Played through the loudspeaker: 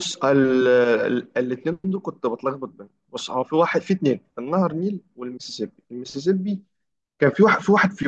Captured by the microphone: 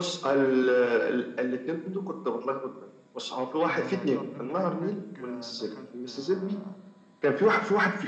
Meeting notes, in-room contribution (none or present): present